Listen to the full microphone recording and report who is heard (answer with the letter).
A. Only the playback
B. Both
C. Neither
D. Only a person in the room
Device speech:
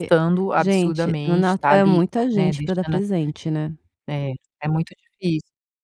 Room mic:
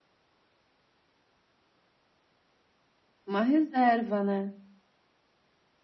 D